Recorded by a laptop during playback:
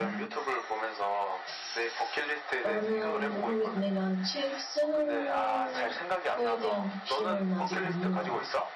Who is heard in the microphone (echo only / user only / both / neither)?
both